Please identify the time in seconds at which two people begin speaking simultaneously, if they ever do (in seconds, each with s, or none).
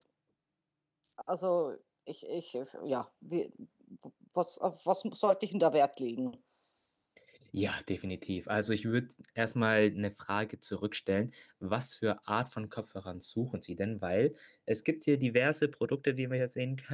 none